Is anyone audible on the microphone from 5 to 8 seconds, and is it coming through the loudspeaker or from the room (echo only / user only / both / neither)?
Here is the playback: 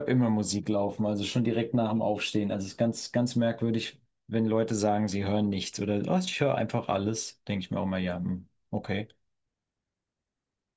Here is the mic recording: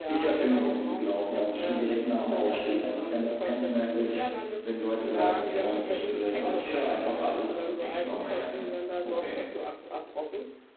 both